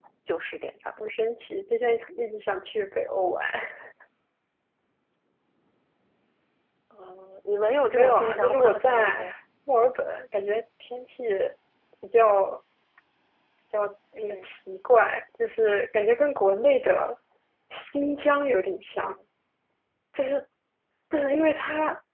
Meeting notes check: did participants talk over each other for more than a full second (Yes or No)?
Yes